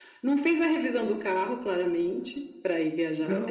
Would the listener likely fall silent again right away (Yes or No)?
No